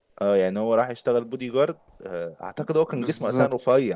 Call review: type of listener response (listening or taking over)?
taking over